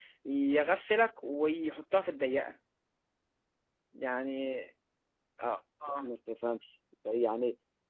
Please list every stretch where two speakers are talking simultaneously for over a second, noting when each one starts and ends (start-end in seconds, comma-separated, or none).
none